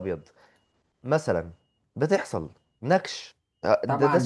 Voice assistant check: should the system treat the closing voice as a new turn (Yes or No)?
Yes